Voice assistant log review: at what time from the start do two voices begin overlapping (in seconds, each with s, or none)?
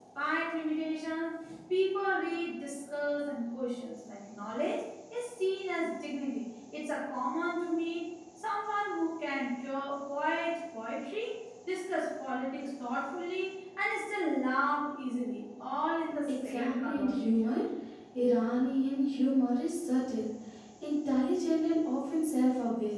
16.3 s